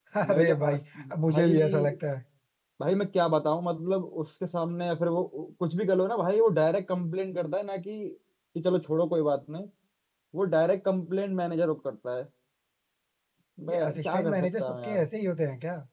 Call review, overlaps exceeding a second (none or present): present